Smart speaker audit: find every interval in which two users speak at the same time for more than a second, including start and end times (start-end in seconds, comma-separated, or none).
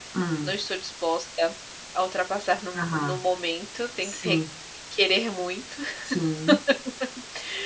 none